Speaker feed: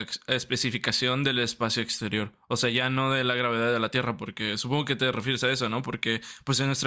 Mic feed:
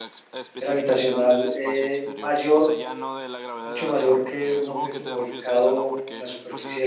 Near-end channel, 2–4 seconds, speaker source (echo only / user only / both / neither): both